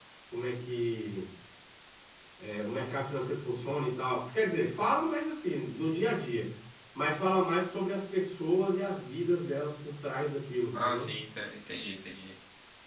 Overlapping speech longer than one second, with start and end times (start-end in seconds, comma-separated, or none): none